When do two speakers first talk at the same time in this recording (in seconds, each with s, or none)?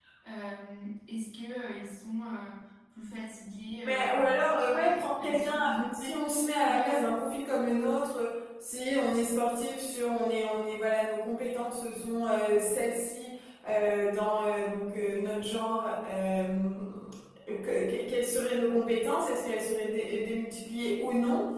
3.9 s